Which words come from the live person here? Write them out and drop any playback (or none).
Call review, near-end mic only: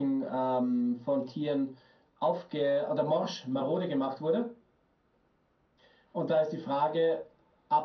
none